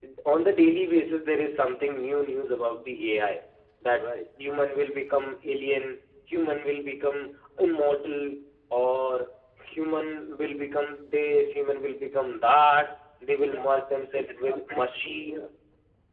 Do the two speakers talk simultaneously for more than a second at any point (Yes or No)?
Yes